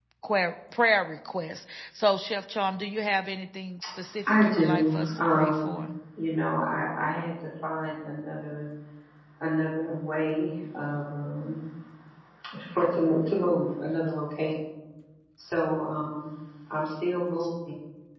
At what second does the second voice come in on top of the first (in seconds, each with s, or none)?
4.3 s